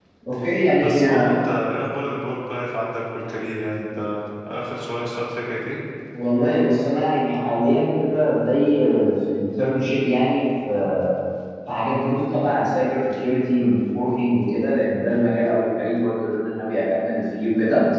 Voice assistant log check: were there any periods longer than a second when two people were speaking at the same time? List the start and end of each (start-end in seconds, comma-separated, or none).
none